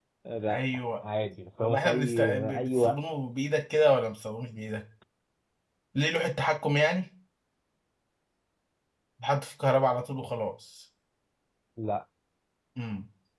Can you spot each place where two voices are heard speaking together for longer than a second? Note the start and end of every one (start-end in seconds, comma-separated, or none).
1.6-3.0